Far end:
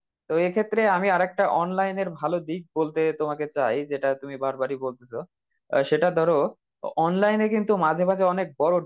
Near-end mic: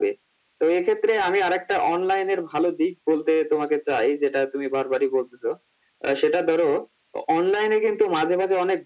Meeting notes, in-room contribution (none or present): none